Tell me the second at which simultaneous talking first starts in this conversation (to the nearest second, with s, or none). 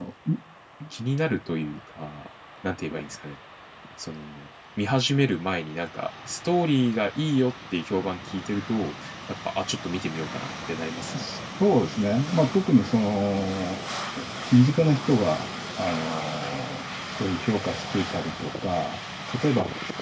none